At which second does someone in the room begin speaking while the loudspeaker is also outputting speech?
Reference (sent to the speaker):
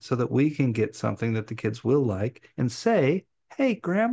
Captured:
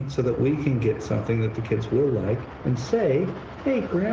none

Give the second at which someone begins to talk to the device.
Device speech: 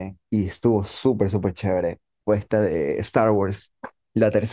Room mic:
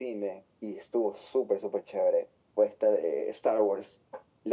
none

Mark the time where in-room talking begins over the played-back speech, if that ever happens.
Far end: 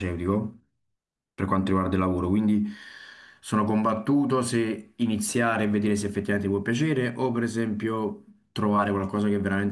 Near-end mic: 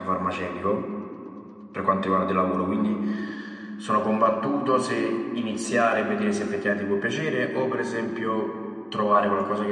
none

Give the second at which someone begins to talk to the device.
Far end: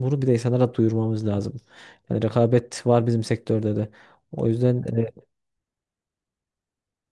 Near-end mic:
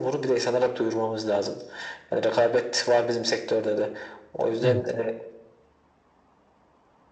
4.6 s

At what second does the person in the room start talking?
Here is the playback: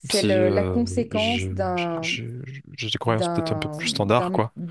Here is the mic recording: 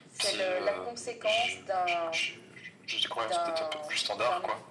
none

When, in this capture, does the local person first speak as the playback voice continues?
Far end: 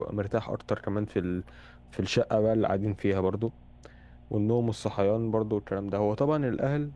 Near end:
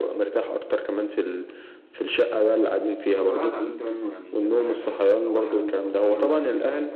3.2 s

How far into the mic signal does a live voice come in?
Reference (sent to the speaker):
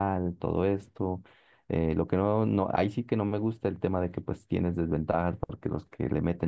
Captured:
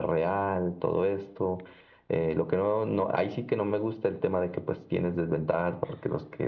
none

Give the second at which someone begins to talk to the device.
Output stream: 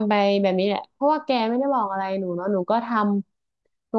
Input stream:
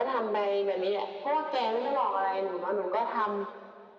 none

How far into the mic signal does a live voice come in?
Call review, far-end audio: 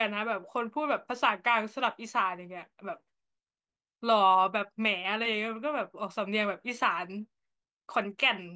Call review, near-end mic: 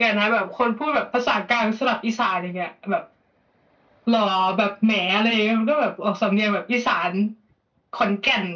none

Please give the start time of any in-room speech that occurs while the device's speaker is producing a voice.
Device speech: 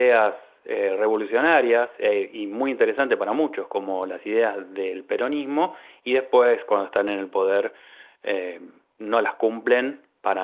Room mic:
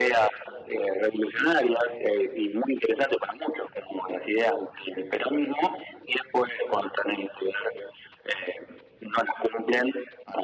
none

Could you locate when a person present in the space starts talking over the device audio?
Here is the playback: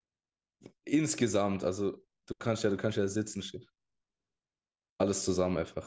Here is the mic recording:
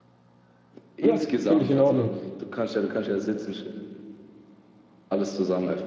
1.0 s

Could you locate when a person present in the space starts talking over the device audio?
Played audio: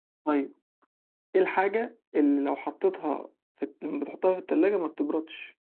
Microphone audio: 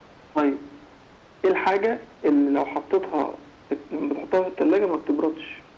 none

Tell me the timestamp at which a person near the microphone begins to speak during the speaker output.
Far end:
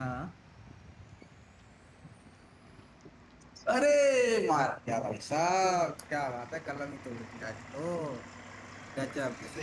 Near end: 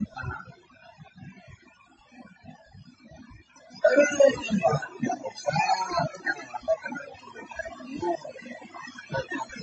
none

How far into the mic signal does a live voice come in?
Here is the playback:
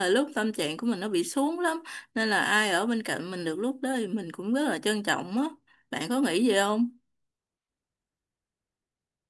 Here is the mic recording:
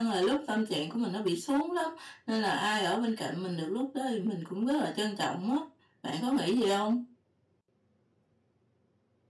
none

